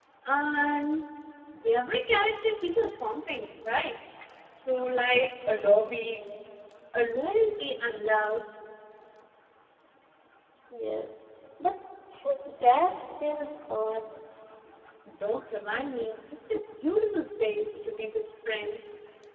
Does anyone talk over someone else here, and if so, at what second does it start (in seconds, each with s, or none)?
none